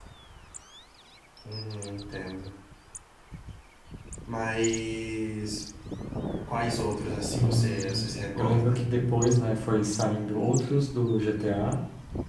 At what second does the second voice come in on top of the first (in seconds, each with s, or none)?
7.3 s